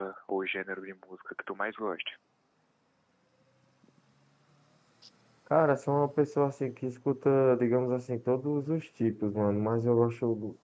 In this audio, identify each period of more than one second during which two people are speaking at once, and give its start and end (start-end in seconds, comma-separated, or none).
none